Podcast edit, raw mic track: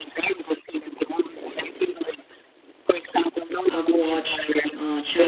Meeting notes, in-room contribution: present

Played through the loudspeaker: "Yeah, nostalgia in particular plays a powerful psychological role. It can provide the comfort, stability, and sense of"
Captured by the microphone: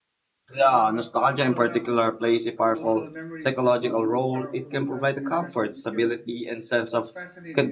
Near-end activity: present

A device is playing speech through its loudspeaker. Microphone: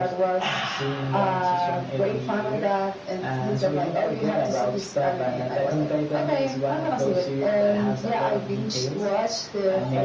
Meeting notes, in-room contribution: none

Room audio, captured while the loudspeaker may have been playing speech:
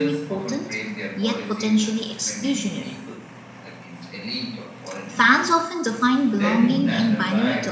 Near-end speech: present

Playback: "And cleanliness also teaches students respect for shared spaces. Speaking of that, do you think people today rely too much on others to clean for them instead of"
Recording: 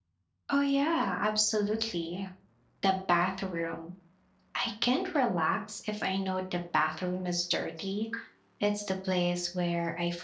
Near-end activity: present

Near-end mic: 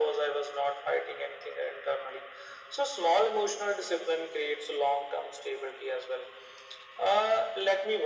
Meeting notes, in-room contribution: none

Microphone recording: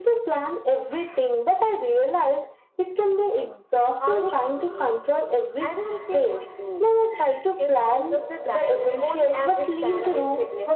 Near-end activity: none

